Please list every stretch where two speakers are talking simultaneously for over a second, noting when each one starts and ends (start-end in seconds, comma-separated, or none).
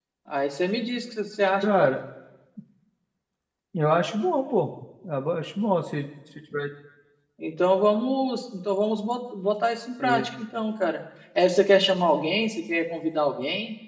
none